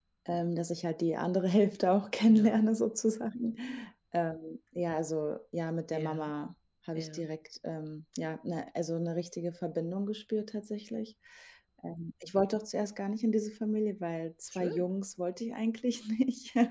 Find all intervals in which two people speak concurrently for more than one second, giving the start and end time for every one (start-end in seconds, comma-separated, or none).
none